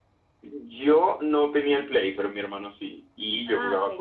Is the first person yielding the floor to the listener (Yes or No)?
No